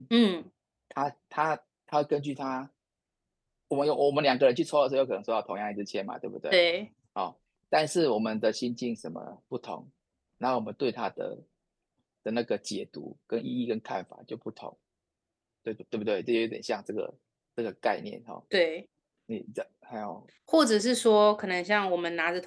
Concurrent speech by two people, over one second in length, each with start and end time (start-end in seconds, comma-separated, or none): none